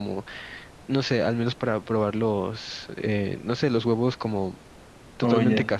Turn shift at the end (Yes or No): No